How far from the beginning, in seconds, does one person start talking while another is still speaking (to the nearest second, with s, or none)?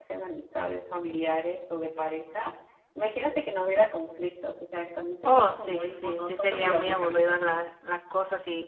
5 s